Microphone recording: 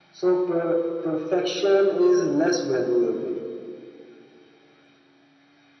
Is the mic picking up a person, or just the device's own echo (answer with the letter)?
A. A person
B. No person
B